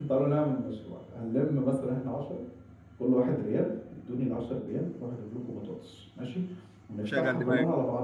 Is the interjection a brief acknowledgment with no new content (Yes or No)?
Yes